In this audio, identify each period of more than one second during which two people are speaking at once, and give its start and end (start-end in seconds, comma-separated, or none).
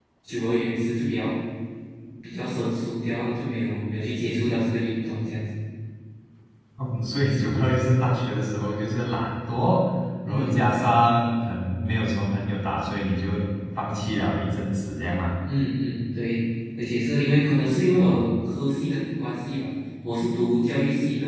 none